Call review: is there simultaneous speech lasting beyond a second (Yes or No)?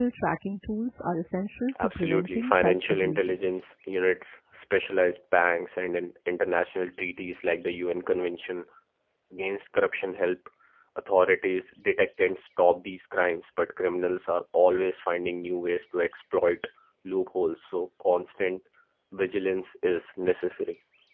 Yes